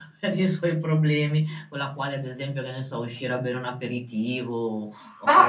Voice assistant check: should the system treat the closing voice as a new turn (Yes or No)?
Yes